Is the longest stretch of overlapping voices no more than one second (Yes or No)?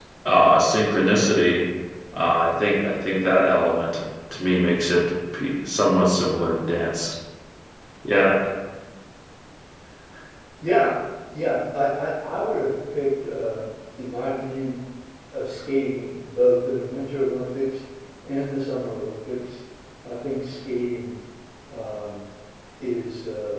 Yes